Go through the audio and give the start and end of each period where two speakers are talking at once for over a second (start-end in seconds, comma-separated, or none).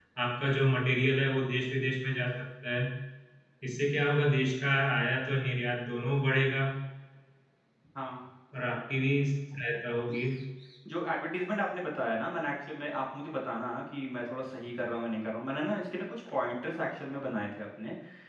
none